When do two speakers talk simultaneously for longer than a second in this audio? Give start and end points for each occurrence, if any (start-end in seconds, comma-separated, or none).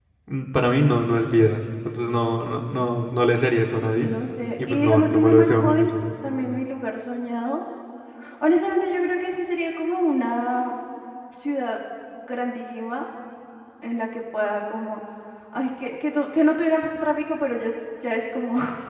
4.7-5.9